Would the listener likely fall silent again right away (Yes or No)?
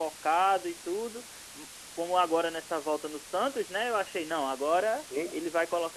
Yes